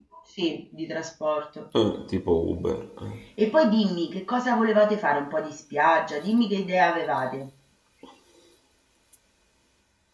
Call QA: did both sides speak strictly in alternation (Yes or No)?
Yes